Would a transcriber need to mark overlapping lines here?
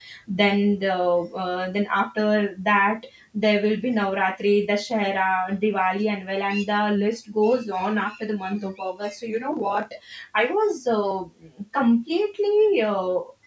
No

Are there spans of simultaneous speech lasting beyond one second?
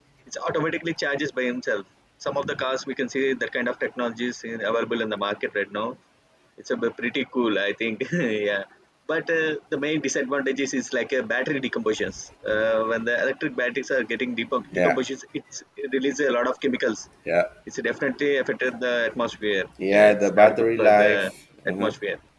Yes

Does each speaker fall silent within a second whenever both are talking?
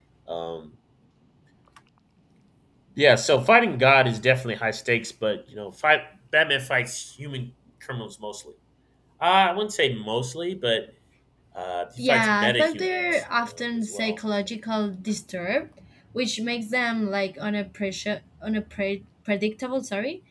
No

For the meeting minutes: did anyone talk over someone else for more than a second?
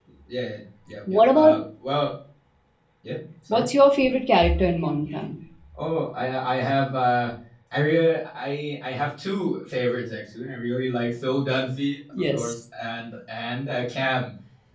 No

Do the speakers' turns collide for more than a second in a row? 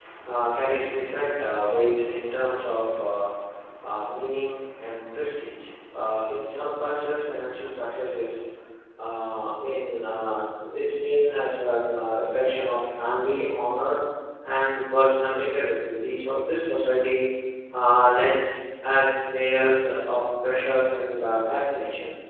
No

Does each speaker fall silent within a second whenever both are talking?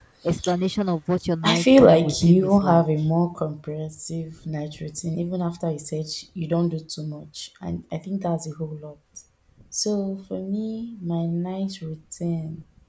No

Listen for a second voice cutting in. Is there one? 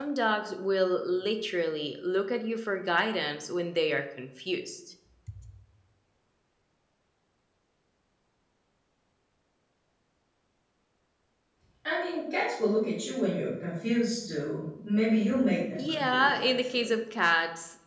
Yes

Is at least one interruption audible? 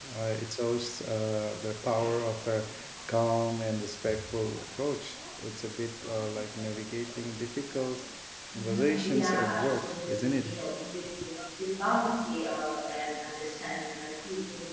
Yes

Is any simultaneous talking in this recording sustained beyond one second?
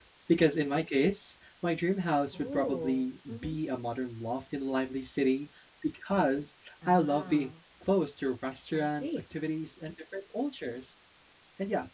Yes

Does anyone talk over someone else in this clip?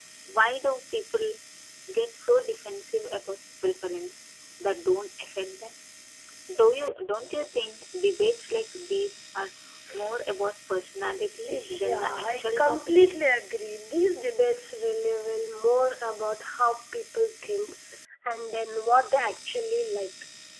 Yes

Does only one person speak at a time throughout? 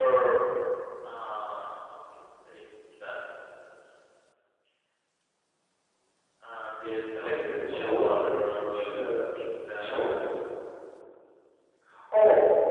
No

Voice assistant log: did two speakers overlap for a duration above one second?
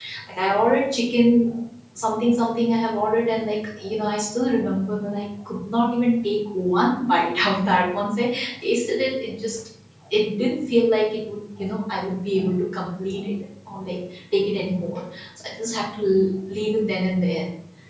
No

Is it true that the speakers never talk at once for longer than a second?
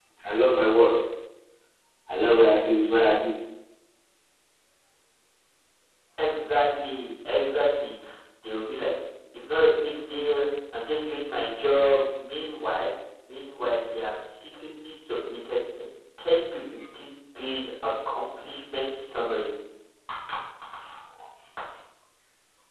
Yes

